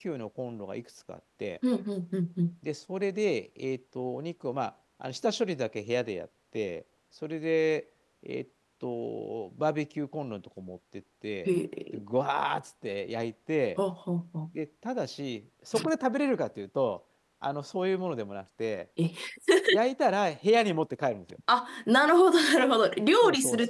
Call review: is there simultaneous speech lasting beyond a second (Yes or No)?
No